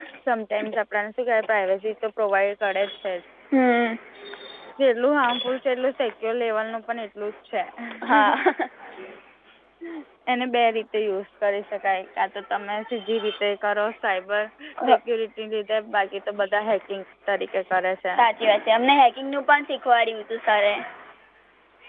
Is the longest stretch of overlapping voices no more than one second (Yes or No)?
Yes